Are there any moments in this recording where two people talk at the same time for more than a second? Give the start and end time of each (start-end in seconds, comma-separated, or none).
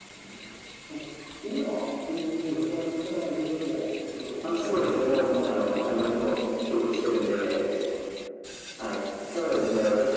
4.4-6.2